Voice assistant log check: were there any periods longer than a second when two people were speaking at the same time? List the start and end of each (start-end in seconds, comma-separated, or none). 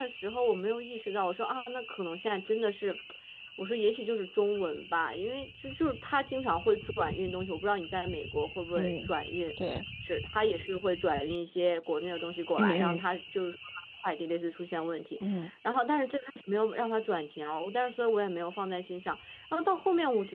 none